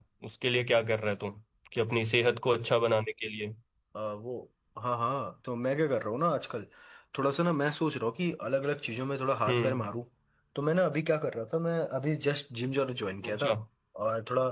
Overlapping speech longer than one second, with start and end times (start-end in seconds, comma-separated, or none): none